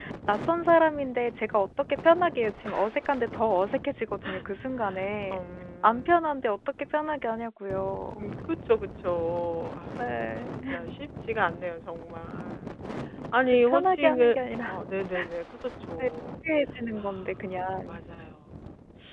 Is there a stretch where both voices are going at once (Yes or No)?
Yes